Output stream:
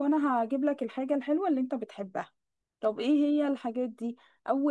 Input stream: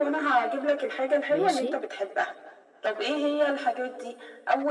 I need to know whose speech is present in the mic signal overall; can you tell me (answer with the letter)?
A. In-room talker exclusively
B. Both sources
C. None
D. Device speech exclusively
B